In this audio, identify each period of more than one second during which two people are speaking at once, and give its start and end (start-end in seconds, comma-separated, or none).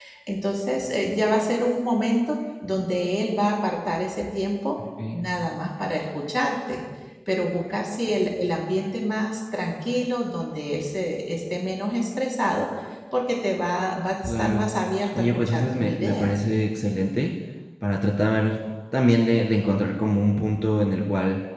15.2-16.4